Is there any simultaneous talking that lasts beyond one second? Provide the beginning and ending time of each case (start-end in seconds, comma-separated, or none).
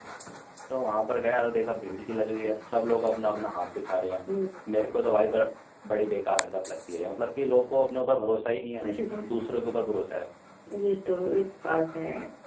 none